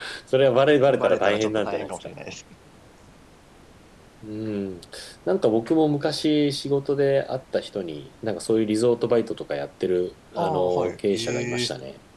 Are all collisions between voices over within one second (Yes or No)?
No